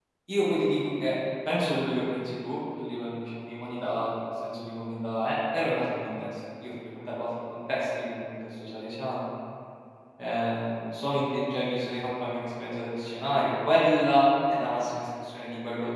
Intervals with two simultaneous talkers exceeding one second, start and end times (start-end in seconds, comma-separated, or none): none